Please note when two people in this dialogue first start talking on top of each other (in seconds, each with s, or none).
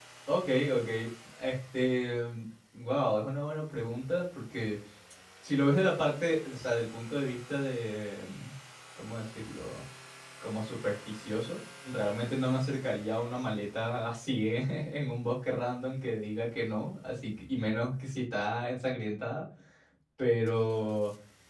none